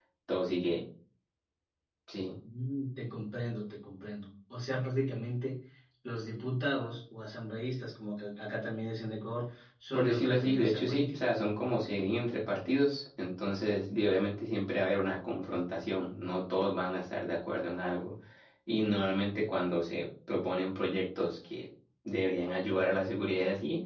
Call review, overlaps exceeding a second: present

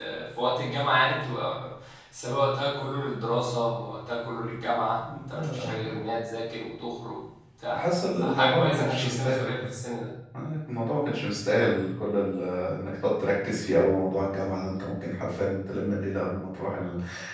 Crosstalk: present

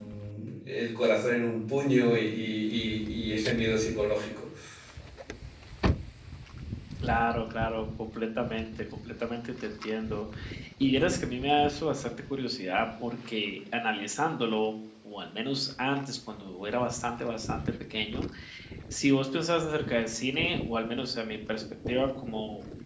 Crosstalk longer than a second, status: none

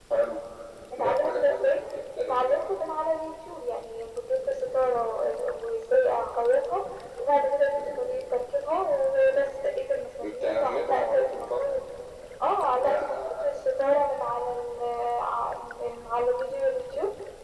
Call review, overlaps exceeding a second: present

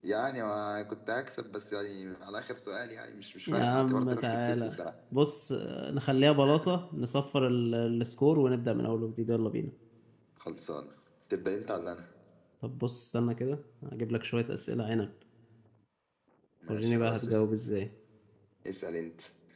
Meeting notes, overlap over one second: present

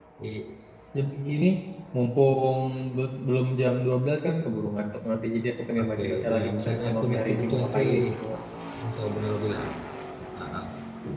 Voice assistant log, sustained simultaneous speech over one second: present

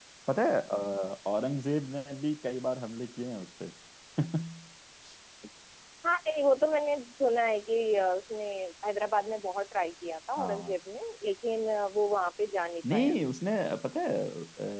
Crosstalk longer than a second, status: none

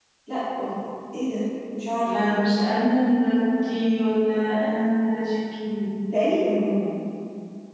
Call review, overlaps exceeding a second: none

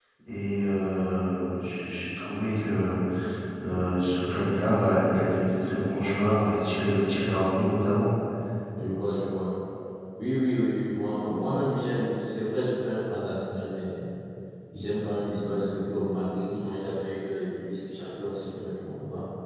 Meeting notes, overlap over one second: none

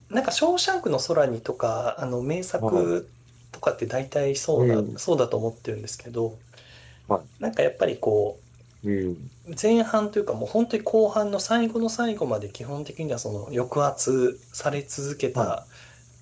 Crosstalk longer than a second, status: none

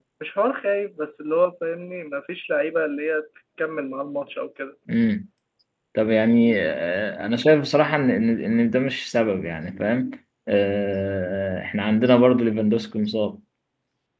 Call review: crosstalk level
none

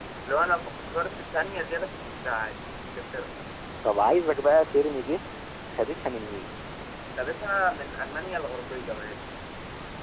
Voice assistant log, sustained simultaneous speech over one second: none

